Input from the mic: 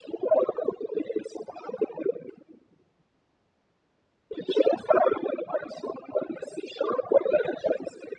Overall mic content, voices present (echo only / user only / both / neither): echo only